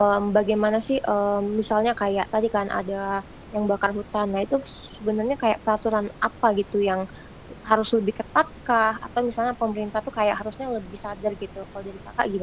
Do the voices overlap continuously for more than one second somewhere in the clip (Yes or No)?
No